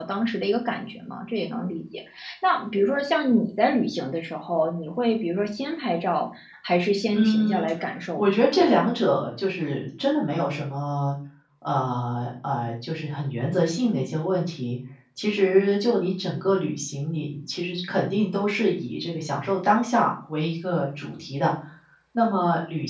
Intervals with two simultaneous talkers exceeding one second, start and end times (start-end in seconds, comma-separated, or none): none